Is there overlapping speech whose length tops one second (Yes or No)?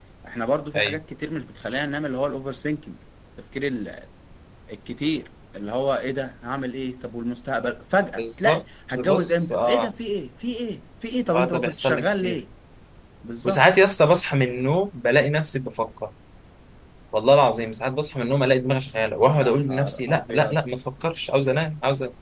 Yes